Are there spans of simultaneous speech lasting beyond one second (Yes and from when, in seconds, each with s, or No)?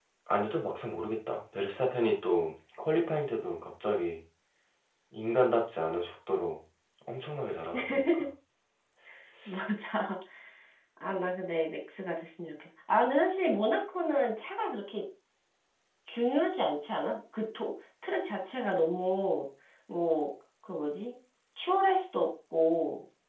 No